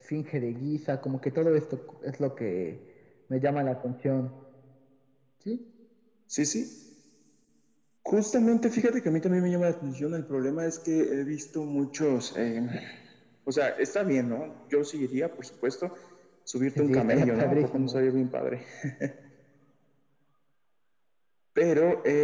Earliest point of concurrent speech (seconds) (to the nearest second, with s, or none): 17 s